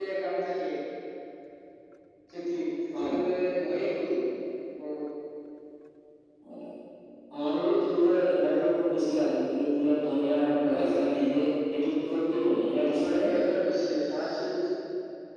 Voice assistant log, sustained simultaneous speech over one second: none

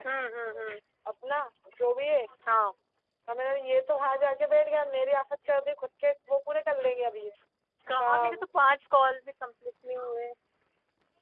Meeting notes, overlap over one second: none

